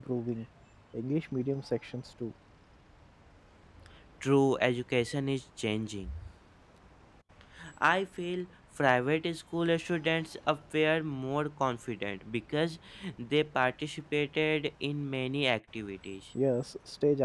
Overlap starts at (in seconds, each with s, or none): none